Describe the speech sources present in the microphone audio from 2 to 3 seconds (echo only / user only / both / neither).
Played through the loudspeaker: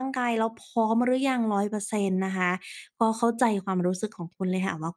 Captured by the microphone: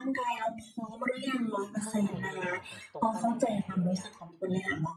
both